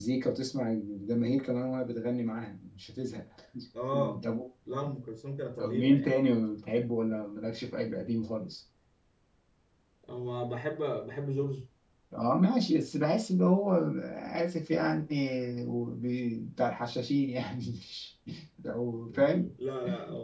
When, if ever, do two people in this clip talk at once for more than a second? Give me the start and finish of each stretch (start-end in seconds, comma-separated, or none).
none